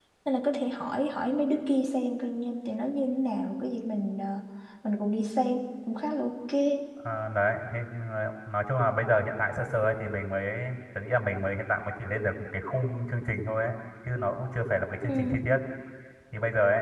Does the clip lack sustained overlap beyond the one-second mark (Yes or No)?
Yes